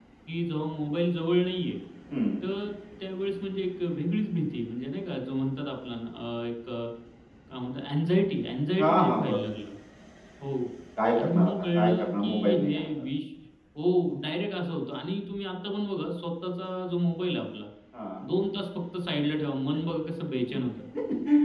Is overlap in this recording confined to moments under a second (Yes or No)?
No